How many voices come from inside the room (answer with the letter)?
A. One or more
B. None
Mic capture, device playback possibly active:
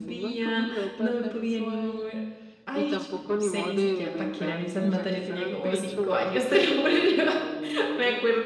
A